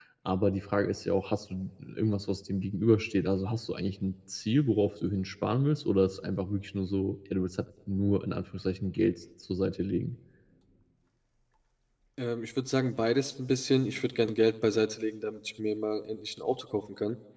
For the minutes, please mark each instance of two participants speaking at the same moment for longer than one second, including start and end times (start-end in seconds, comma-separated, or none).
none